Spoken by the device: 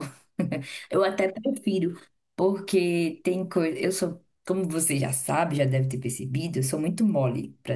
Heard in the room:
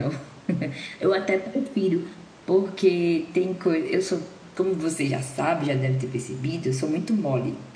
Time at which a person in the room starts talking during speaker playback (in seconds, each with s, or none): none